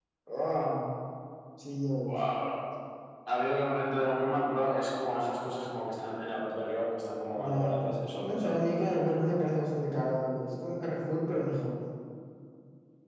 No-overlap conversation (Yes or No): No